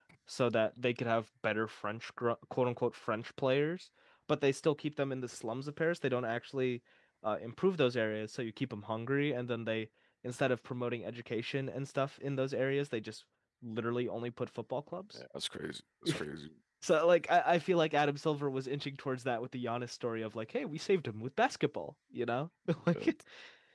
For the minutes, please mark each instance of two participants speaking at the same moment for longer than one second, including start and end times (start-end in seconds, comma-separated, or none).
none